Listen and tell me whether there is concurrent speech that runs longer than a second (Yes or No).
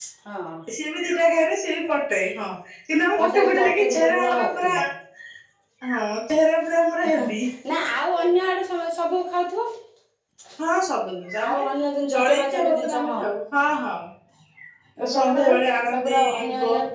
Yes